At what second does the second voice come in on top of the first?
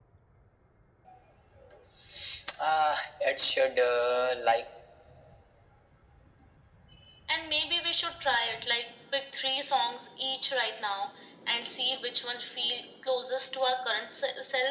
none

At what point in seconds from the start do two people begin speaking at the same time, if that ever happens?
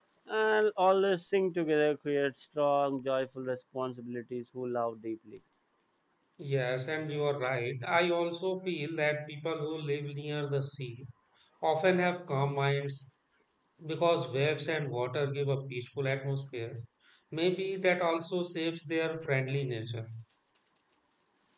none

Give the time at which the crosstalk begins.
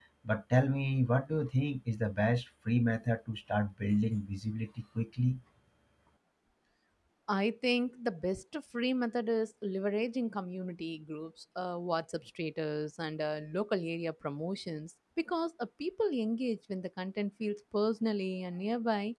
none

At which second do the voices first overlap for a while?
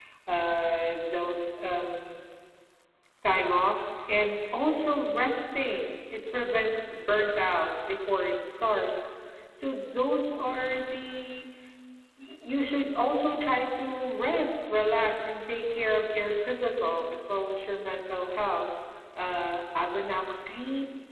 none

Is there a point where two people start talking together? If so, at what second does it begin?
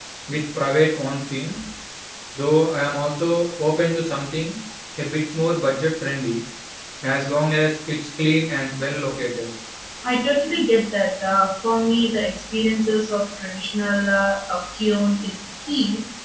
none

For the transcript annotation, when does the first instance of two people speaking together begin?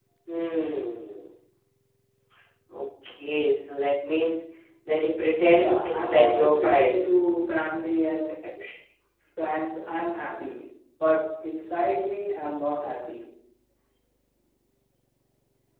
5 s

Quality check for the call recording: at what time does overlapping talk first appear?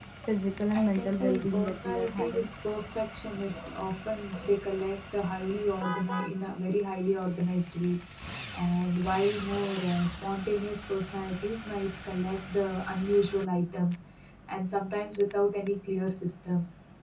1 s

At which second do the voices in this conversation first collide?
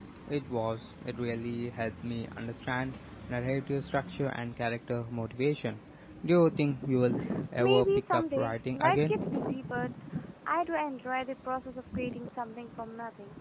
8 s

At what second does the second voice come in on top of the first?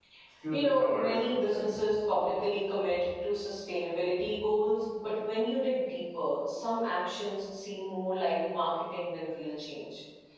1 s

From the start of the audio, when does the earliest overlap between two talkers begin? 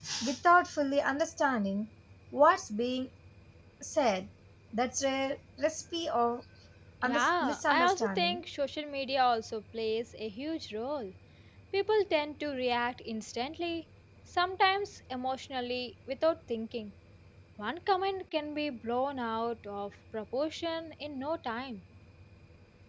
7 s

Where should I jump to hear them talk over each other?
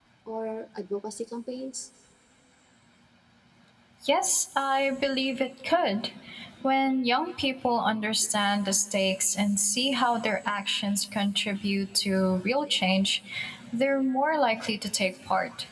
none

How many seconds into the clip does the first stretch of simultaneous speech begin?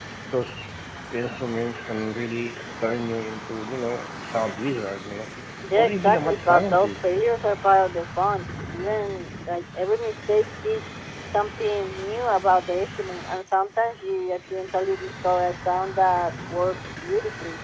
6 s

